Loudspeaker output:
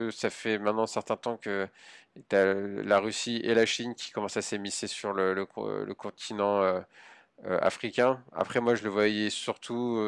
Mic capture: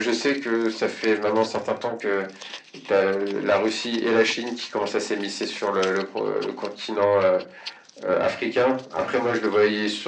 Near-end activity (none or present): none